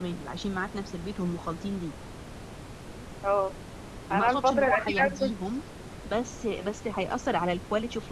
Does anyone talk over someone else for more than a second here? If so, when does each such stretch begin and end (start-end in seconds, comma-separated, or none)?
4.1-5.5